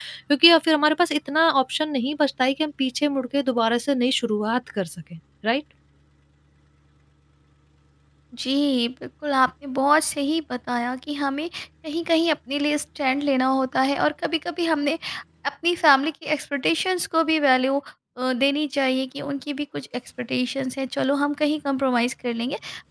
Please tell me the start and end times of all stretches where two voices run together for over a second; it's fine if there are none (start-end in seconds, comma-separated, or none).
none